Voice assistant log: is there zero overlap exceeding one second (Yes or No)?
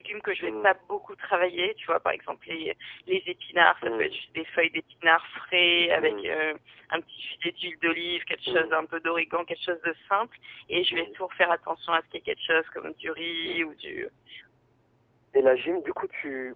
Yes